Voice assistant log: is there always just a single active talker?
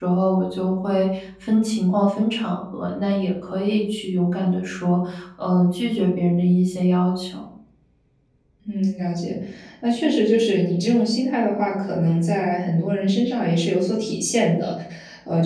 Yes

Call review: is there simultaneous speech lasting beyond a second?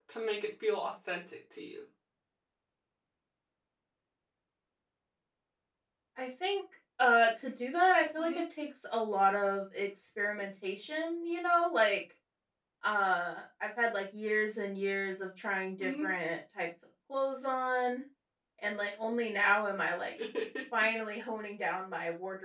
No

